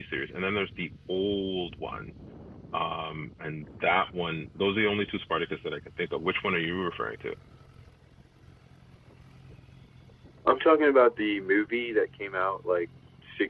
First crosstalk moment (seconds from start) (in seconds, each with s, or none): none